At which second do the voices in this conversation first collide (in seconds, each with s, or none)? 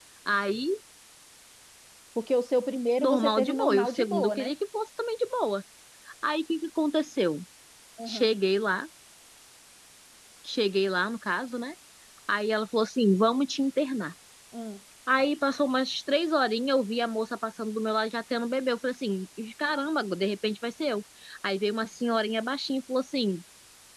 3.0 s